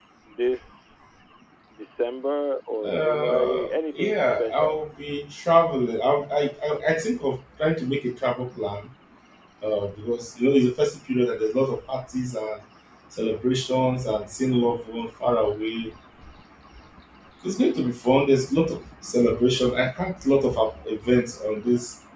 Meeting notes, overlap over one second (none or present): present